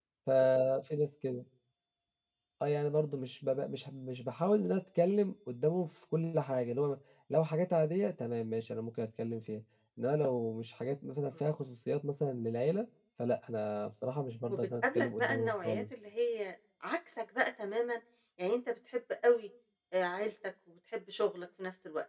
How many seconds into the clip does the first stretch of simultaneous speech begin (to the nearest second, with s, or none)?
14 s